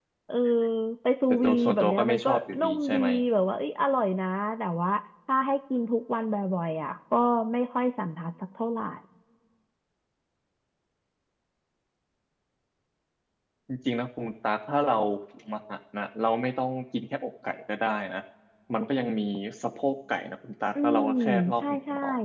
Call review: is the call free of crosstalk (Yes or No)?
No